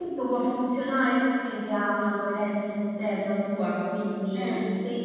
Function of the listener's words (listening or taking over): listening